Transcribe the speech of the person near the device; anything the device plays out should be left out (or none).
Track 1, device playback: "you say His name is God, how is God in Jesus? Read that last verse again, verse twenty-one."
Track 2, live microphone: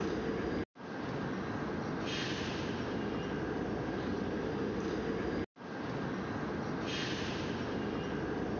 none